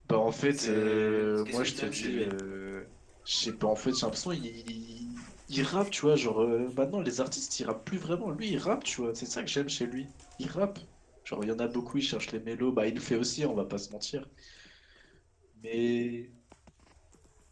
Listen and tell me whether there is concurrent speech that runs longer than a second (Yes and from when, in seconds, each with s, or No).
Yes, from 0.5 s